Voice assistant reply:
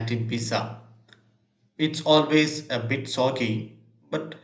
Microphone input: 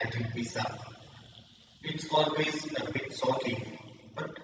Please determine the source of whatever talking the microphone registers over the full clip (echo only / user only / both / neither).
echo only